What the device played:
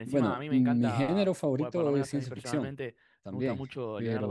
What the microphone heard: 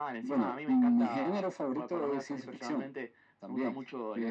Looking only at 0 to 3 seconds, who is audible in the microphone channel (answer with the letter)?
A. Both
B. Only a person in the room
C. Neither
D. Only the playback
D